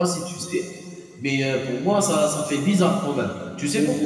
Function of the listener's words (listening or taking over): listening